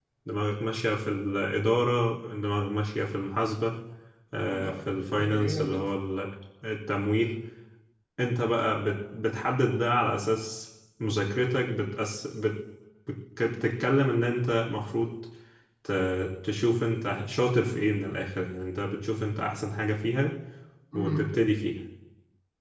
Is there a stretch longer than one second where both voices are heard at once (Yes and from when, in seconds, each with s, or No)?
Yes, from 4.4 s